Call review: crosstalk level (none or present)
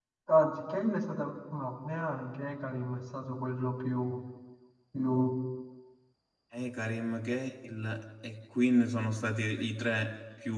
none